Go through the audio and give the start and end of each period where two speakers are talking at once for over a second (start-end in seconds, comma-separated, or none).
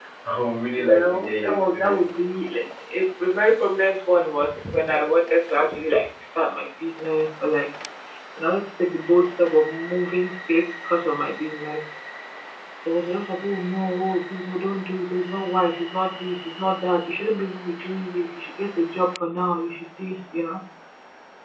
0.8-2.2